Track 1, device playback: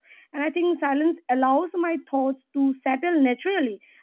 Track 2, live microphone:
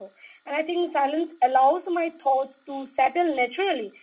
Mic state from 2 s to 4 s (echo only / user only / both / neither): echo only